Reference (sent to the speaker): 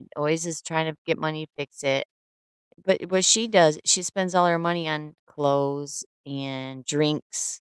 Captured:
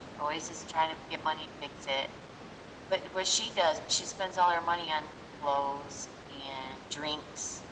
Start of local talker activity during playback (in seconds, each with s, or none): none